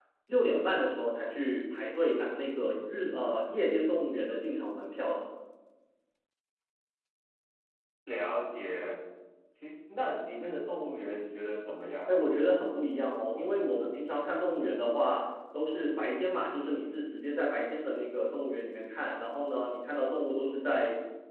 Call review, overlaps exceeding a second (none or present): none